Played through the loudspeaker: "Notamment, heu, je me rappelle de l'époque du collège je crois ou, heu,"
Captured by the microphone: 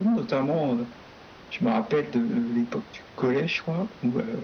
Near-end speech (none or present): none